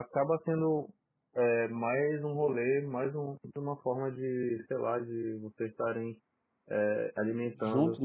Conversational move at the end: listening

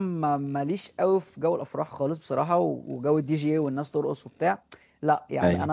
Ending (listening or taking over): listening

